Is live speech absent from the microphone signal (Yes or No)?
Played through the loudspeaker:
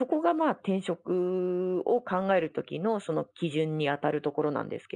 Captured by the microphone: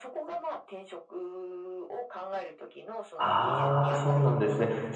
No